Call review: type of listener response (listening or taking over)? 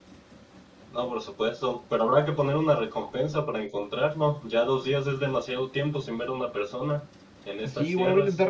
taking over